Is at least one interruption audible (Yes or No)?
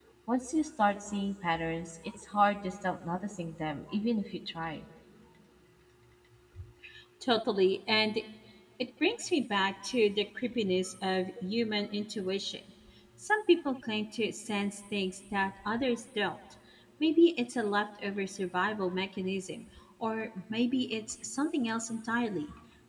No